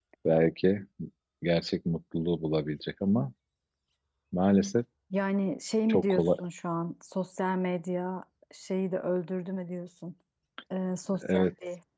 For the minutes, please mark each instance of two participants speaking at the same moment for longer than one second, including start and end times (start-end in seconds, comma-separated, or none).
none